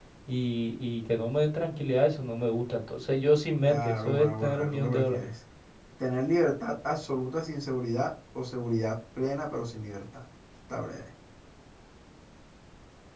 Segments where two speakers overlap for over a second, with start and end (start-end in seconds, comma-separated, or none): 3.7-5.3